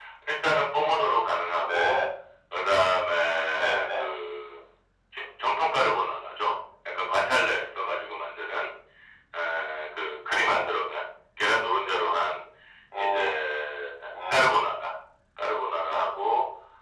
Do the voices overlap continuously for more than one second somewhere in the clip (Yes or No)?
No